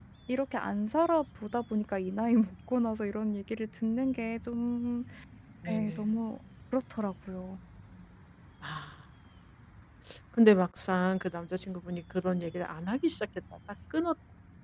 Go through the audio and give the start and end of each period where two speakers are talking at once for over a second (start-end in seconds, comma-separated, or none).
none